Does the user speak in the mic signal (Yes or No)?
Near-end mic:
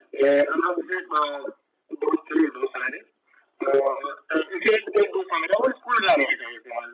No